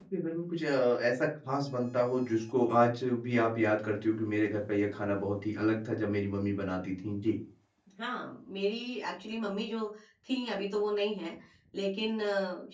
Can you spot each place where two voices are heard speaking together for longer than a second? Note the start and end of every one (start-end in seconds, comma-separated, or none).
none